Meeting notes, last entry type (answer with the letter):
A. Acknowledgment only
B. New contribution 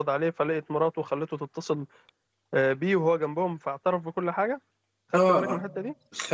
B